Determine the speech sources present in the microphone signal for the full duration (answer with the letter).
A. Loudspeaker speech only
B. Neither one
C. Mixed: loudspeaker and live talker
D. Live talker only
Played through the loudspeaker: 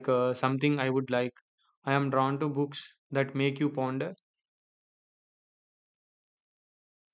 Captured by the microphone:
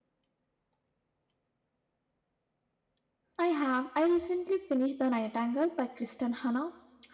D